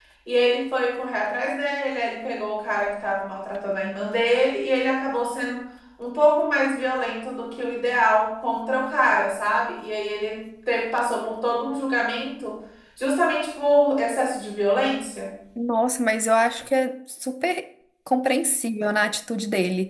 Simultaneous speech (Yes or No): No